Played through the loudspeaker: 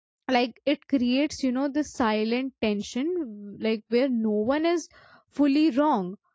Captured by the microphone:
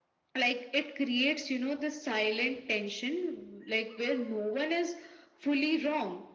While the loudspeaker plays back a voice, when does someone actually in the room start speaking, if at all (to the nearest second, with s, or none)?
none